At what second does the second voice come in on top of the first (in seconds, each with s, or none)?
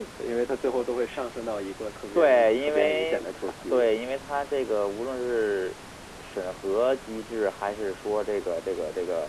2.1 s